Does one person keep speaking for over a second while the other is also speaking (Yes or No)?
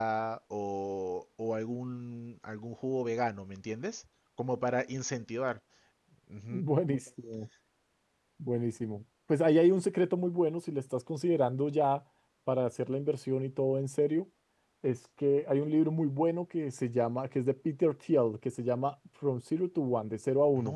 No